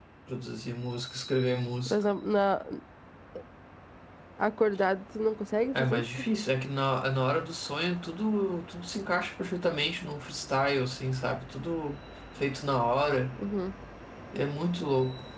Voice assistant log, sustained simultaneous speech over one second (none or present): none